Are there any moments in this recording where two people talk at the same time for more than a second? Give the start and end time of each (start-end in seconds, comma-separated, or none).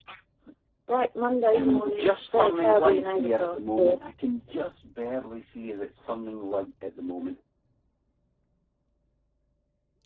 1.5-4.0